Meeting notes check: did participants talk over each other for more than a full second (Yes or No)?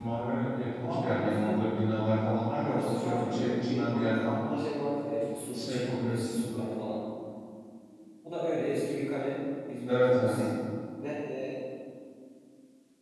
Yes